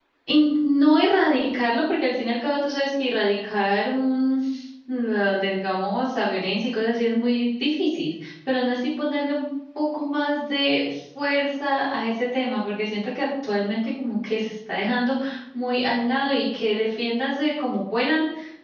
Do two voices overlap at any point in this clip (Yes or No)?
No